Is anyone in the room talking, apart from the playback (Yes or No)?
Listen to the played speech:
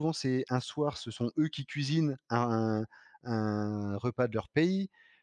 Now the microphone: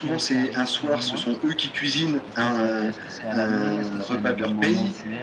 Yes